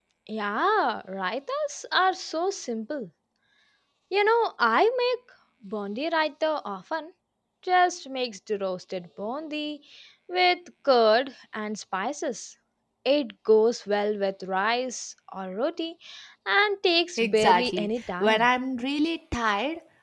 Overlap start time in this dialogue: 17.2 s

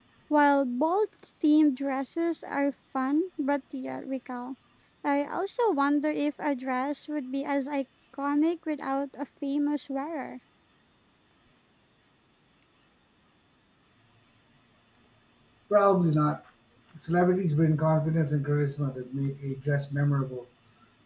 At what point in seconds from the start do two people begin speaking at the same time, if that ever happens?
none

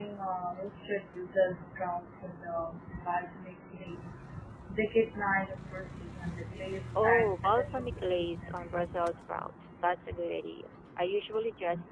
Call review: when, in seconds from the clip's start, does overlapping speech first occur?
7.0 s

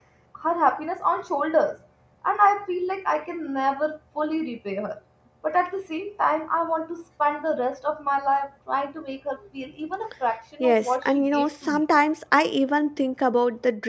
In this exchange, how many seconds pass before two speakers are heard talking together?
10.6 s

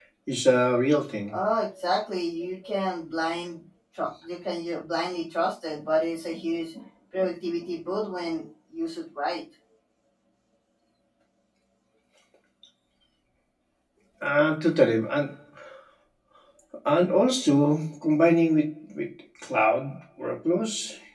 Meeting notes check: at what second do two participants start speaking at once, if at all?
none

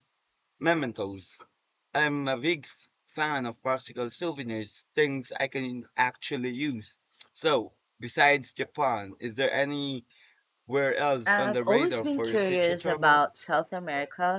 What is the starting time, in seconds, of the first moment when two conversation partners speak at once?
11.3 s

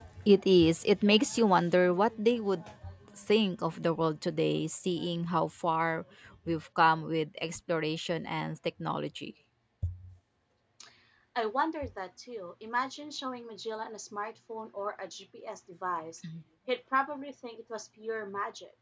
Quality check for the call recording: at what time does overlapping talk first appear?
none

